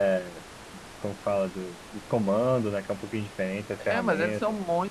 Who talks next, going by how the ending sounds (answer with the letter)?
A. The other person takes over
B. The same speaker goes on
A